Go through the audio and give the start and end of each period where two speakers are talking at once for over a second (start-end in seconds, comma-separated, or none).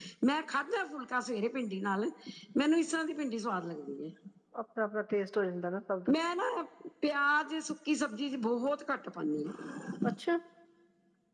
none